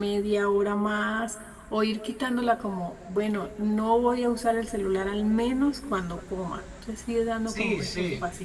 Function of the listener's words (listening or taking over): taking over